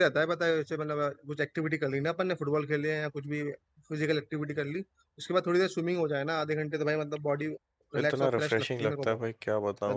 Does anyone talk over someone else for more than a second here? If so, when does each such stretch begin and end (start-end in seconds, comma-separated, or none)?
8.0-9.2